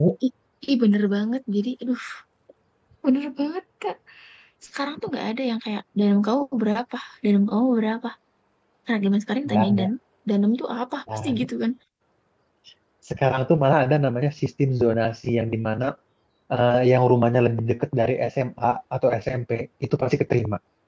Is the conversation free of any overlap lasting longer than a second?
Yes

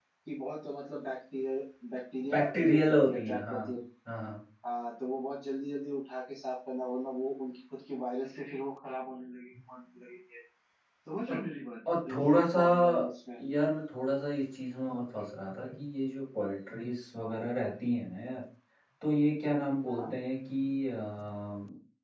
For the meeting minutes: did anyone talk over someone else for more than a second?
Yes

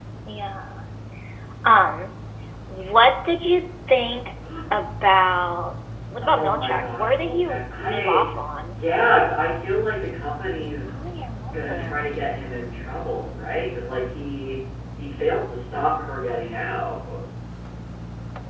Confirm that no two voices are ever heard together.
No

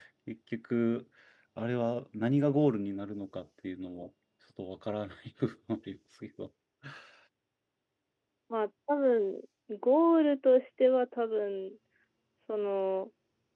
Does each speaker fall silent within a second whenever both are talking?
Yes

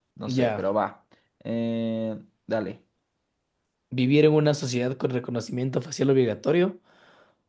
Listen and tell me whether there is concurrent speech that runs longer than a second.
No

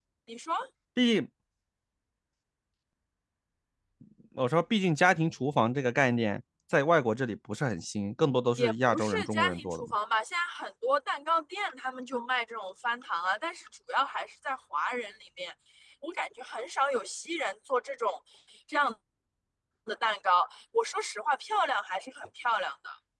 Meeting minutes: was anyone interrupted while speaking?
Yes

